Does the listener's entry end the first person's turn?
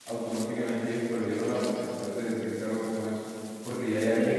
No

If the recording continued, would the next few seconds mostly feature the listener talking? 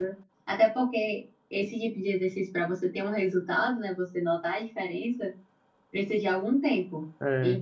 No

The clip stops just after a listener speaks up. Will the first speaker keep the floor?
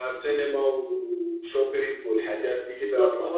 No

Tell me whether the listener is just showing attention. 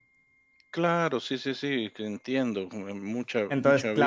No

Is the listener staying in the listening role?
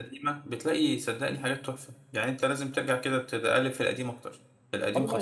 No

